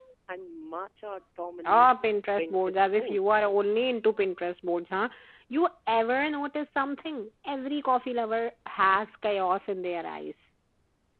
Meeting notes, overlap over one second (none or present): present